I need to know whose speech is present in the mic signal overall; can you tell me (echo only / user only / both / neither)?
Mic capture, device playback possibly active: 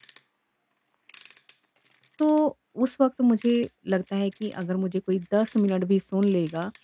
user only